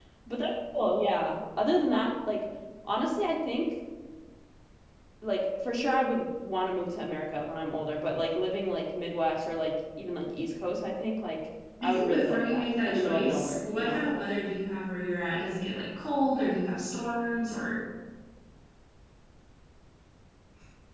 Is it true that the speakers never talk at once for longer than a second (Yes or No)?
No